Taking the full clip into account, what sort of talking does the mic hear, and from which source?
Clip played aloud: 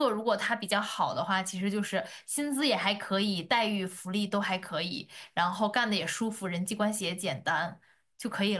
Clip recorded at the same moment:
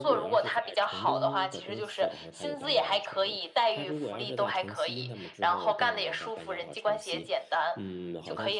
both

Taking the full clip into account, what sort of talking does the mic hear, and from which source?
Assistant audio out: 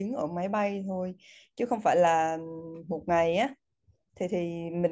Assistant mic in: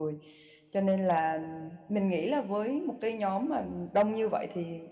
user only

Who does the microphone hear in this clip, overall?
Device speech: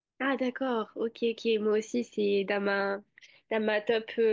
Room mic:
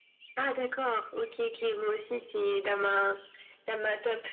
echo only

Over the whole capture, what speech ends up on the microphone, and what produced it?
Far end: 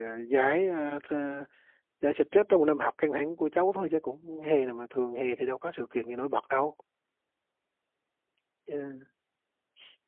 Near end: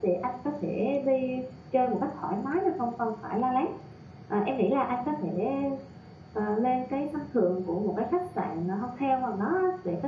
user only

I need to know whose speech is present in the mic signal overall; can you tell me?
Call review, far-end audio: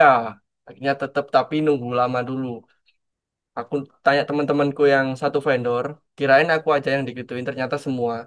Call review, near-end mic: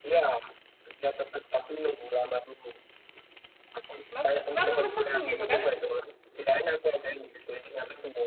both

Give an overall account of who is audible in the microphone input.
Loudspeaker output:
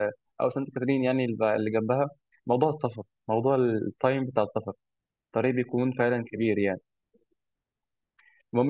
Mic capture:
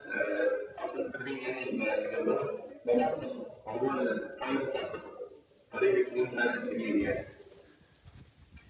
echo only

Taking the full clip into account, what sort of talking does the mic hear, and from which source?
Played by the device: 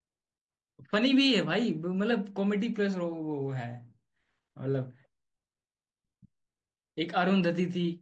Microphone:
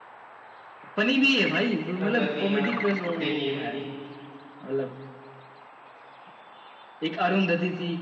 both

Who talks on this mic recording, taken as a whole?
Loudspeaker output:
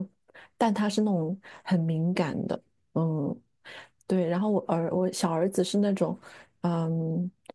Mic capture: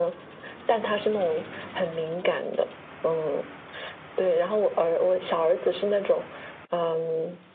echo only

